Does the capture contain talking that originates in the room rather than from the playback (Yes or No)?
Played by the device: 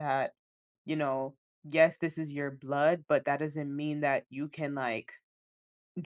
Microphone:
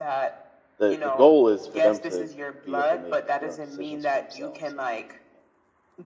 Yes